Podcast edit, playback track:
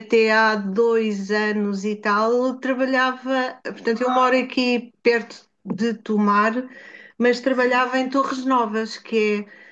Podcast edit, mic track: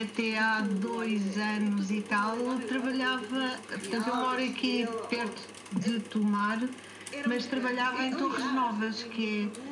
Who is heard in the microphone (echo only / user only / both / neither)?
both